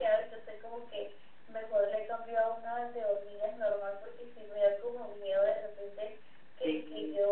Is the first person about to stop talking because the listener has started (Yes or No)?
No